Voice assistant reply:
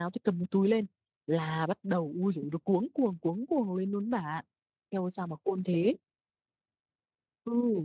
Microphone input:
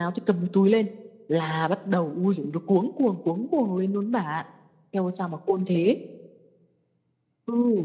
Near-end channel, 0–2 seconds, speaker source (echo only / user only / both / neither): echo only